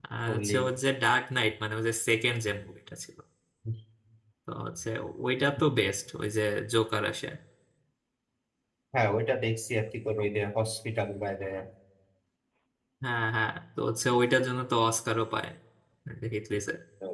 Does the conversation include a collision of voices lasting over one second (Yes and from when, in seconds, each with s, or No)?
No